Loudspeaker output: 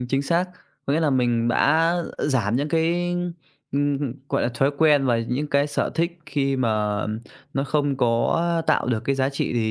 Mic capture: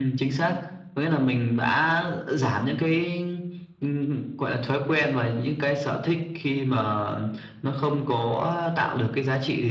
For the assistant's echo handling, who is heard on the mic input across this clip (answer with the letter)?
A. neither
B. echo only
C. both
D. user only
B